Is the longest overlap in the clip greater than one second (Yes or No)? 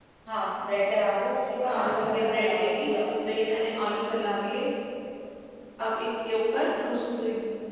Yes